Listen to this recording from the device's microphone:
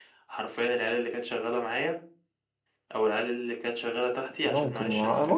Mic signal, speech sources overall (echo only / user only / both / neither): both